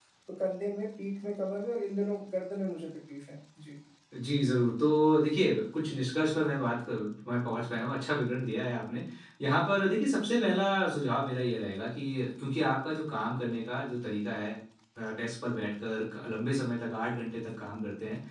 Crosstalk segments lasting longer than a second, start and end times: none

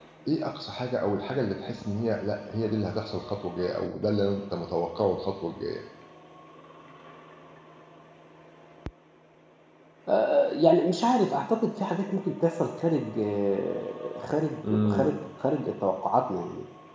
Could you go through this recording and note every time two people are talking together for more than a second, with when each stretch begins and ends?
none

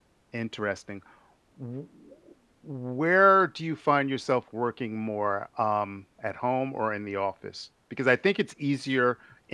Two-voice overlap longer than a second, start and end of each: none

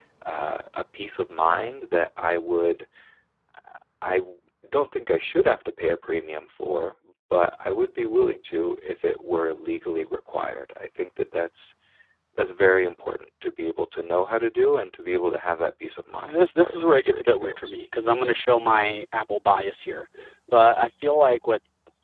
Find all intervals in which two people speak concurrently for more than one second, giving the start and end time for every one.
16.2-17.7

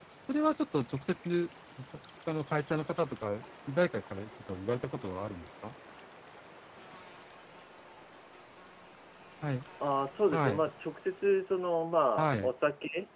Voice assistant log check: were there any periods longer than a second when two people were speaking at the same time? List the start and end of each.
none

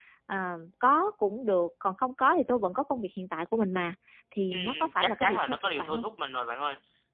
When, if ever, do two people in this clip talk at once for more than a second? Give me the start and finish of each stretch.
4.5-6.0

